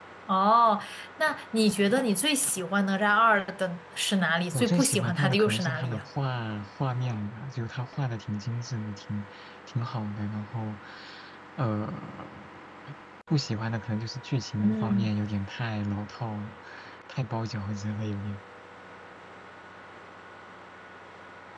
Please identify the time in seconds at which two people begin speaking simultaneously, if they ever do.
4.5 s

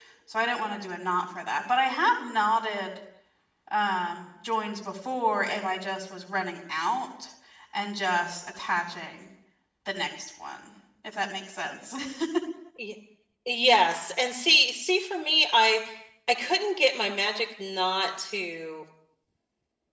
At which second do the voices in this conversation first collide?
none

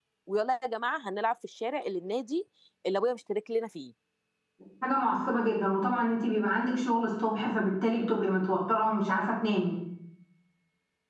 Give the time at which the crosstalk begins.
none

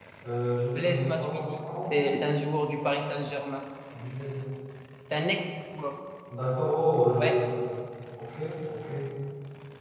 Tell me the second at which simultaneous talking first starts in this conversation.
0.8 s

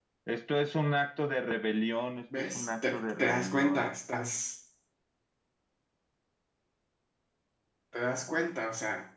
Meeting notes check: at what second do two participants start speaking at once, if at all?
2.3 s

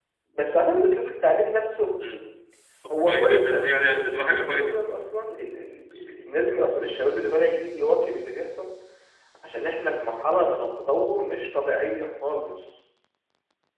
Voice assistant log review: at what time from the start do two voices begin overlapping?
2.9 s

